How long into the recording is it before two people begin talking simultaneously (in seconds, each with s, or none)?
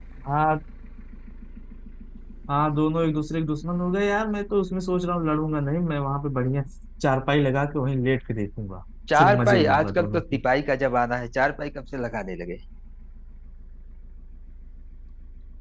9.1 s